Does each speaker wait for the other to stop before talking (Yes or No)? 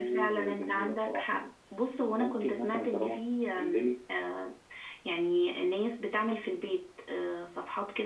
No